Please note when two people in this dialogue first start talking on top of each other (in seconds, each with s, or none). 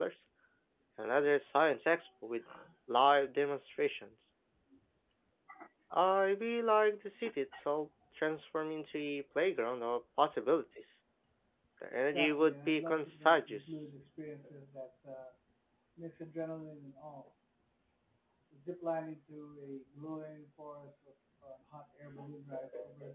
12.1 s